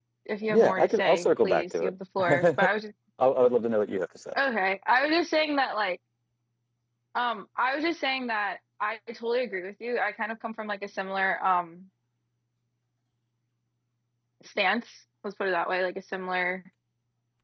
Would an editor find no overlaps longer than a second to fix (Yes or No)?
No